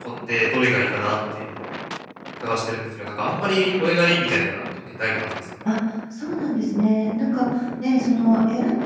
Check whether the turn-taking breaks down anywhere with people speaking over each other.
No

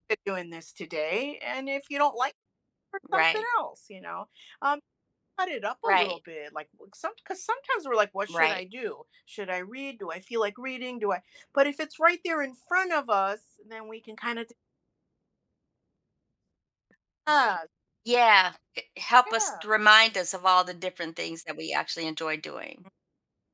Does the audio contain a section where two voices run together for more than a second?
No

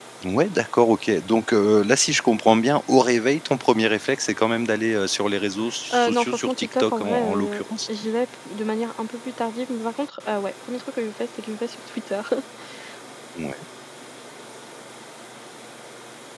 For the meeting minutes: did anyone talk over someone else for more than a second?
Yes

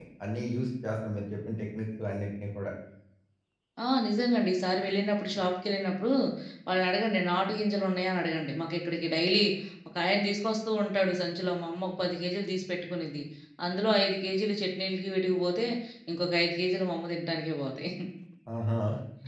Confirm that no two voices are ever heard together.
Yes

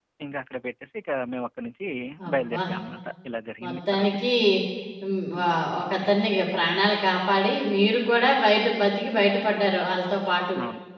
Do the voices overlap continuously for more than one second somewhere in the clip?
No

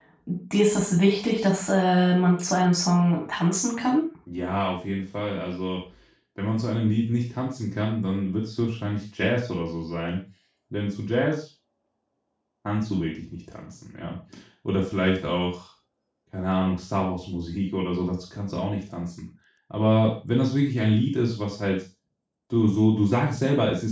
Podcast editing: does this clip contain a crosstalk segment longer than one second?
No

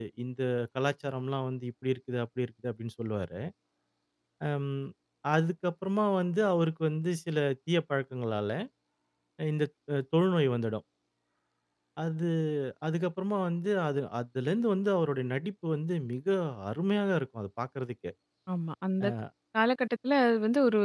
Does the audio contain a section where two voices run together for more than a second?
No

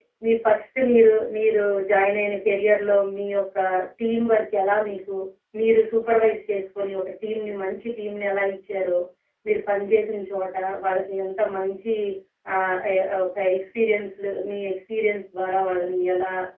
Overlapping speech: No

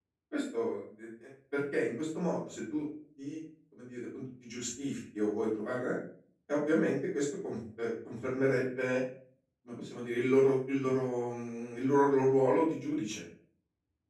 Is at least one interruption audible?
No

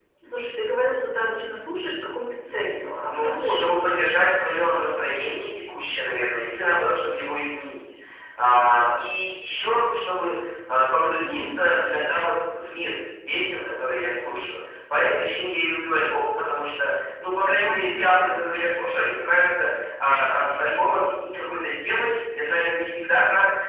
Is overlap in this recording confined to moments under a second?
No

